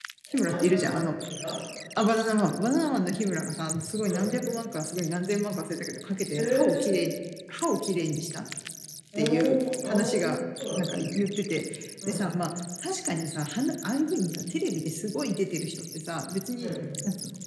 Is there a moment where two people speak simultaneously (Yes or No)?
Yes